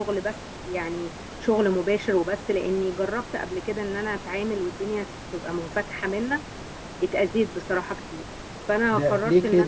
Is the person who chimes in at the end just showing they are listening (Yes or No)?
No